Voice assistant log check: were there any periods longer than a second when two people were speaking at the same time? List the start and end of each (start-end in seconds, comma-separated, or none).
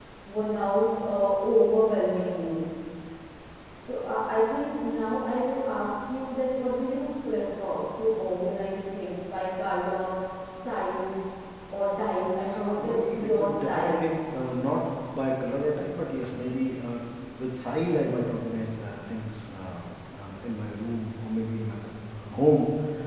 12.4-14.0